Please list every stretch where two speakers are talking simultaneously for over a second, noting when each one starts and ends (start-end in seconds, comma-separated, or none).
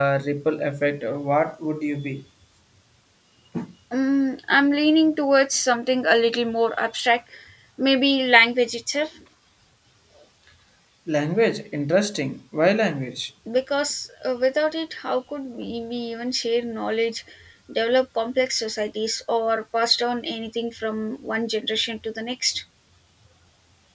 none